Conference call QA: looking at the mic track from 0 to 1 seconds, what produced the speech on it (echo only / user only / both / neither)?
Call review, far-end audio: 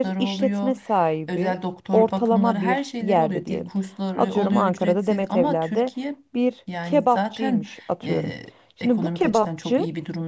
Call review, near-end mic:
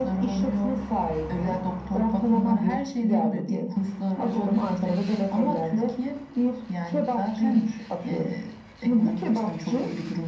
echo only